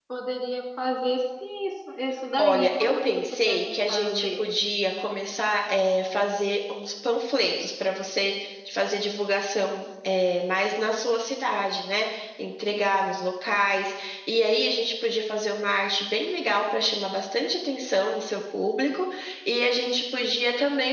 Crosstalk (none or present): present